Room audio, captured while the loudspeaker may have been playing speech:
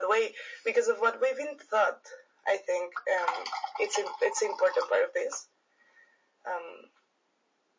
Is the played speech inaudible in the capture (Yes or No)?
No